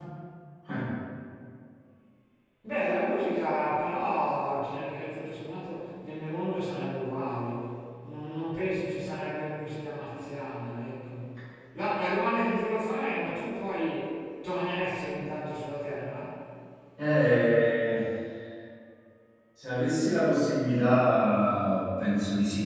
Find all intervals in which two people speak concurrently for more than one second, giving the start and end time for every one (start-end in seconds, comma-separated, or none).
none